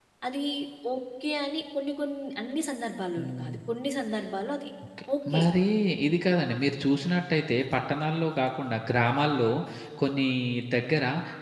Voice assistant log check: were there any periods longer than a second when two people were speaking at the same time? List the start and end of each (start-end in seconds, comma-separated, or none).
none